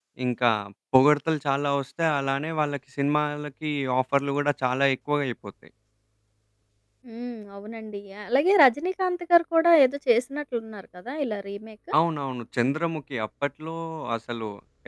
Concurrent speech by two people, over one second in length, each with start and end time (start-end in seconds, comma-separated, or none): none